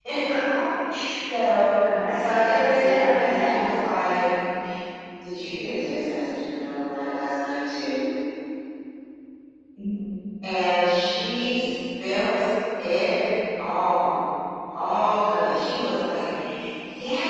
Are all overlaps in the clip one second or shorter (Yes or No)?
No